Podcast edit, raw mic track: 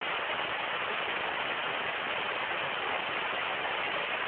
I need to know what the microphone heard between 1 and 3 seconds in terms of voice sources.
neither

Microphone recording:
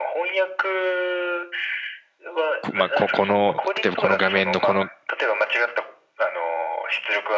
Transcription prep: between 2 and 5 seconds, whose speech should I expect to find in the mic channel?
both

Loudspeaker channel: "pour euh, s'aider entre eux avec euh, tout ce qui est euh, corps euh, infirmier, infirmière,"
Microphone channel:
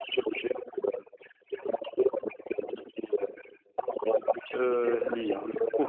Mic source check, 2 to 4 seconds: echo only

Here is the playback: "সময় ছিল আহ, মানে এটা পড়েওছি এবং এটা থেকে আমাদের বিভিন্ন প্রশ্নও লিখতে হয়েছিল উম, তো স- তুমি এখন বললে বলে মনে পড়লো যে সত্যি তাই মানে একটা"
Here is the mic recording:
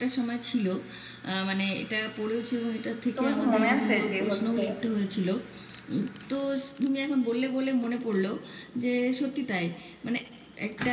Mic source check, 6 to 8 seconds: echo only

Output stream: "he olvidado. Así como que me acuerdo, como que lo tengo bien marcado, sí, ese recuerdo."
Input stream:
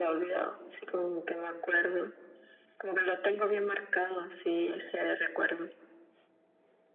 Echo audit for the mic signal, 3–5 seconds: echo only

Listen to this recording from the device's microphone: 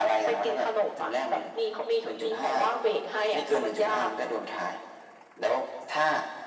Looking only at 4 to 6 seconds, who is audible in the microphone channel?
echo only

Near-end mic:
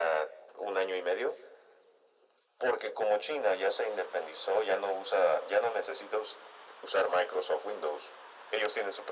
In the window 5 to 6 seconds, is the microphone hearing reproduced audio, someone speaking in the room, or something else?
echo only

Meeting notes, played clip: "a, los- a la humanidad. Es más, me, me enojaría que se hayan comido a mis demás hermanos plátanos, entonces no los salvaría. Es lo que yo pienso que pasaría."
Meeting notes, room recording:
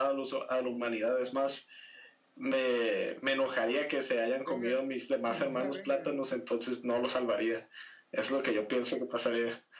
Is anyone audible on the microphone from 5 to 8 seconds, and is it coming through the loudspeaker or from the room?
both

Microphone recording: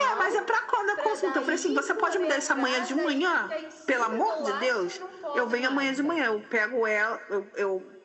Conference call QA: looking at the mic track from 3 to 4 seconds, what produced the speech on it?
both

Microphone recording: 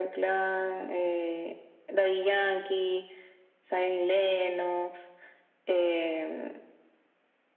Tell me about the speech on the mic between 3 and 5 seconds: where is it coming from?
echo only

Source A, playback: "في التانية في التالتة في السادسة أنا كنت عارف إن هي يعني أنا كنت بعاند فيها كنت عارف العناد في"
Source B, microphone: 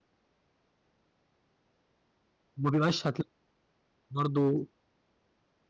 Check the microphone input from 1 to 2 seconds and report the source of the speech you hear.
neither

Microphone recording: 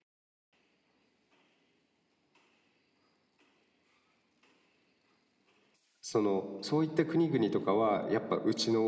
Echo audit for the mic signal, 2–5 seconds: neither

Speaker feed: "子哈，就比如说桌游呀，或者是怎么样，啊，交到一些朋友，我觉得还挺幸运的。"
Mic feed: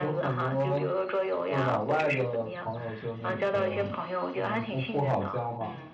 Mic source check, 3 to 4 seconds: both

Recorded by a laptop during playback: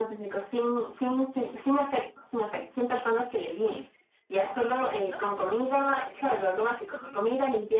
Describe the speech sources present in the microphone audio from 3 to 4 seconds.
echo only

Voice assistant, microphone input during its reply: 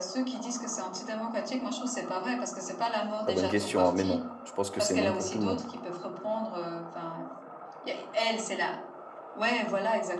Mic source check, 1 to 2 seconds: echo only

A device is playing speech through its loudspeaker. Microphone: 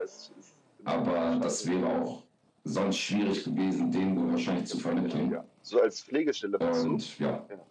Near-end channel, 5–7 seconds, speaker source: both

